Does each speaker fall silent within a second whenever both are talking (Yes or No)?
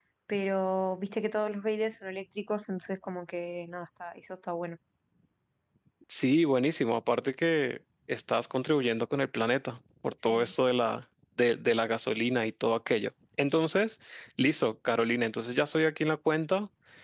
Yes